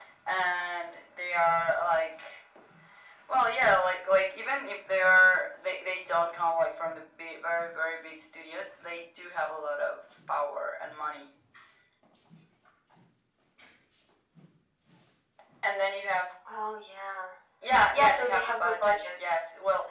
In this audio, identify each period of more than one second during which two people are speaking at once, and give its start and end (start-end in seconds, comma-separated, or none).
17.9-19.3